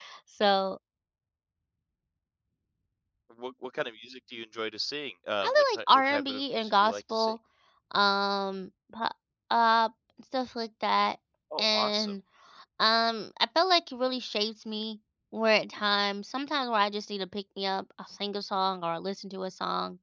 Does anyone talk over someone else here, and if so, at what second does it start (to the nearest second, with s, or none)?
5 s